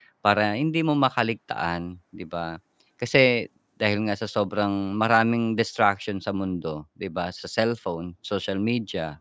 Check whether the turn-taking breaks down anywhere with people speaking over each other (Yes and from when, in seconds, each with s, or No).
No